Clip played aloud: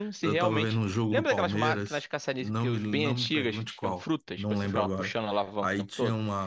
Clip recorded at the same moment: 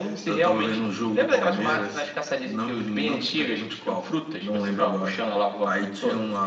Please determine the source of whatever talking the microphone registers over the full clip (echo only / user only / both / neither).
echo only